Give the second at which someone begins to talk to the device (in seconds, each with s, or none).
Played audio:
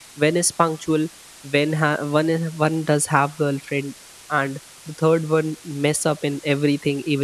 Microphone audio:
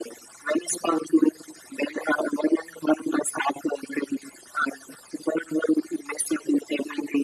none